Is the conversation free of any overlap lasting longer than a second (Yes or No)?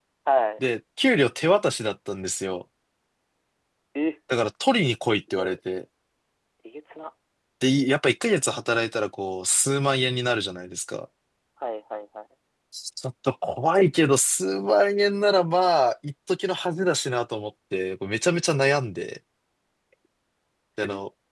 Yes